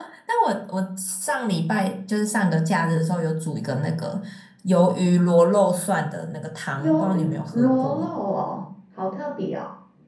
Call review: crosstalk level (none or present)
present